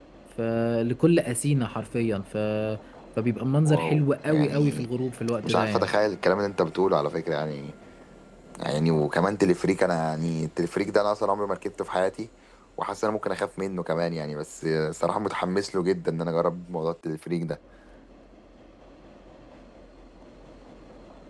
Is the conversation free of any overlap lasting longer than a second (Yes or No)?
No